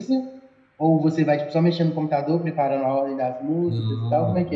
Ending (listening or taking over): taking over